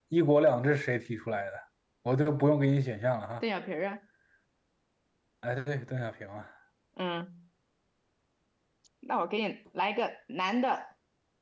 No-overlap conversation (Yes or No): Yes